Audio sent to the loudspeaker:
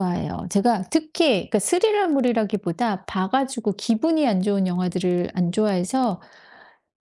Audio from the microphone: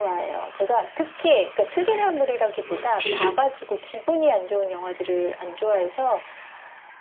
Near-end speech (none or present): present